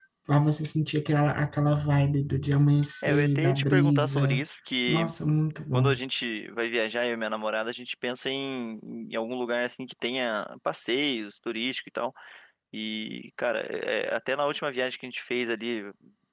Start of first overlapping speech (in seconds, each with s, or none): 3.0 s